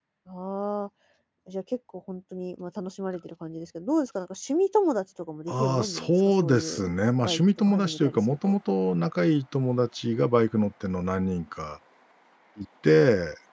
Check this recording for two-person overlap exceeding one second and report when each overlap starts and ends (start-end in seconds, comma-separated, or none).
5.5-6.8, 7.2-8.6